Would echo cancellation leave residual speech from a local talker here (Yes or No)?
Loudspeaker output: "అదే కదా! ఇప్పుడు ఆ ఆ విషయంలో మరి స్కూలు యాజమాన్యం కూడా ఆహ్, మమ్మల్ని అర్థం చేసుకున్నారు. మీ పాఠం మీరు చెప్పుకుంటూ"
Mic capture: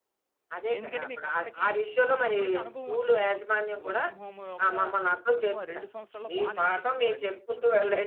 Yes